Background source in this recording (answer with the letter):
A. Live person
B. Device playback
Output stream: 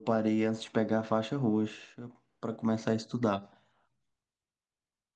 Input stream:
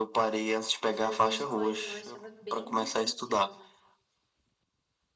A